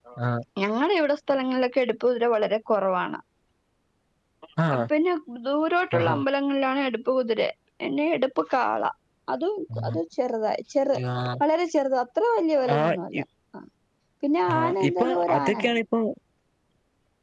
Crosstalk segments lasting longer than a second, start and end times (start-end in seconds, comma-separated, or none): 14.5-15.8